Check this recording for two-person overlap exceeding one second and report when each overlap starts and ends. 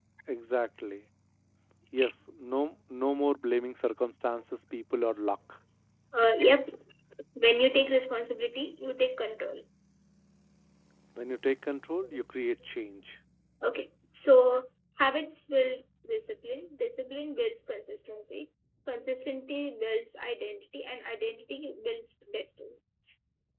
none

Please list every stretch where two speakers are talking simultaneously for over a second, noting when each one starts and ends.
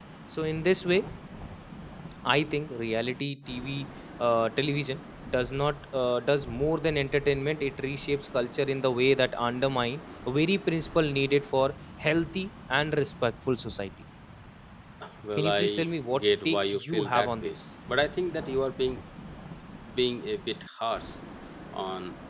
15.4-17.6

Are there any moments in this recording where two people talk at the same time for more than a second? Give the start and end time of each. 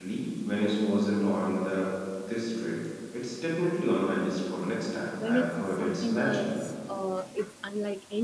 5.1-6.6

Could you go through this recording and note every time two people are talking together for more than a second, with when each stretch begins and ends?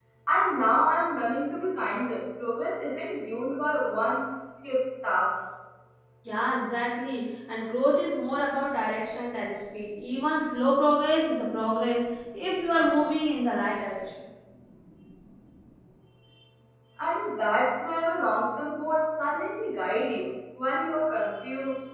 none

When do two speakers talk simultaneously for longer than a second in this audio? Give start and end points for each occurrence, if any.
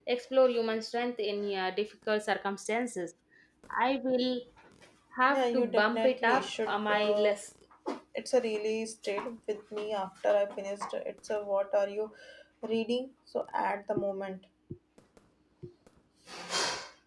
5.3-7.3

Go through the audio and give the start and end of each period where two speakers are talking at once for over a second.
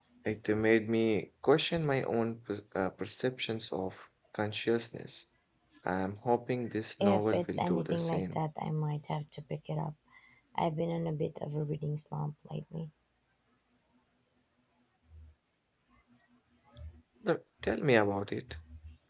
7.0-8.4

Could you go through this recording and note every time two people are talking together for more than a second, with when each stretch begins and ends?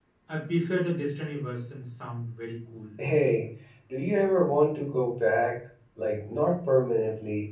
none

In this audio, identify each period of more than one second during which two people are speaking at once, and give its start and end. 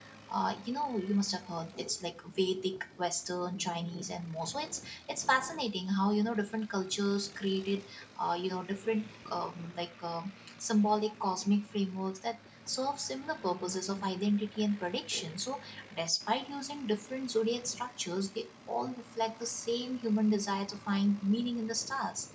none

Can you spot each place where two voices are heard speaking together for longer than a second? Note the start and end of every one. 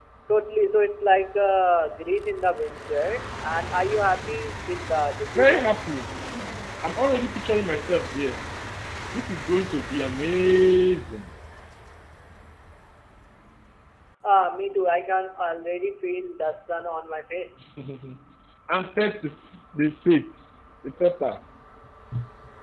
none

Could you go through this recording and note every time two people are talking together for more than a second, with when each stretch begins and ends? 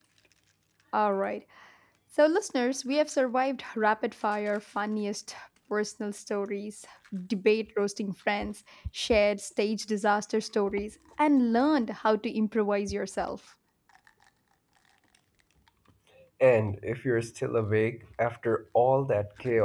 none

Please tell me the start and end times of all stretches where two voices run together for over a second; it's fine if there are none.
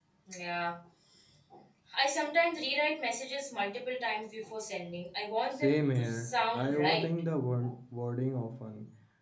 5.6-7.0

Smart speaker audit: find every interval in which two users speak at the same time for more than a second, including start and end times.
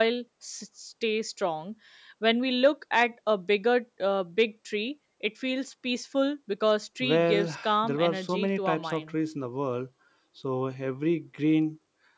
7.0-9.1

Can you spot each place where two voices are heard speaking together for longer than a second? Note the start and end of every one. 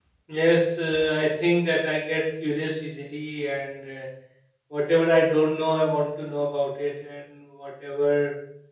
none

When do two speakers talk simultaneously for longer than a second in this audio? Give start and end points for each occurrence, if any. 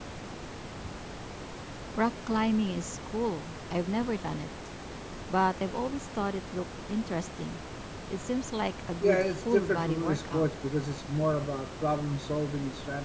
9.0-10.4

